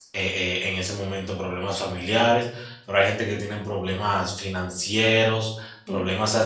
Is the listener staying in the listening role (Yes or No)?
Yes